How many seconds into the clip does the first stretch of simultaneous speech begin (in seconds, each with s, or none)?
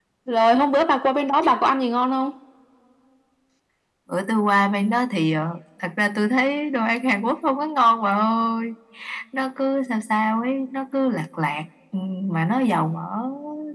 none